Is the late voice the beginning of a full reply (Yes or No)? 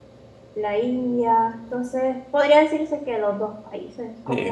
Yes